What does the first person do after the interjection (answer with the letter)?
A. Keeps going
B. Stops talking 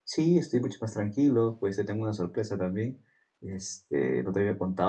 A